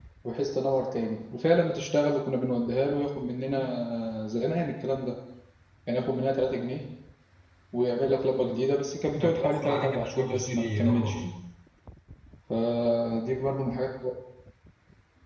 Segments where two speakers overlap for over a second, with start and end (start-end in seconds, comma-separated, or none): 9.1-11.2